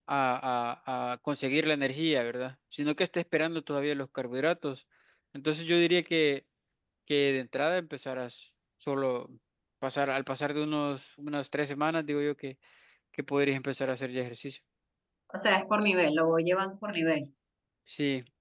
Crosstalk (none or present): none